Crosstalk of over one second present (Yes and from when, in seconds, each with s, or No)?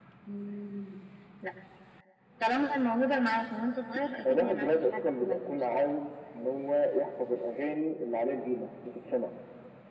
Yes, from 4.2 s